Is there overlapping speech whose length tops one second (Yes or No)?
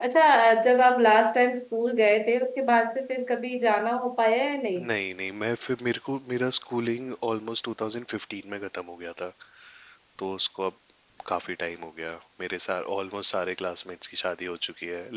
No